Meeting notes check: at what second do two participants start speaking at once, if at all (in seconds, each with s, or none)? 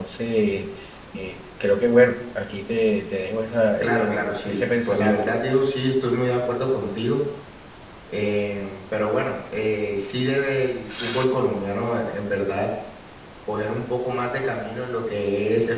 3.8 s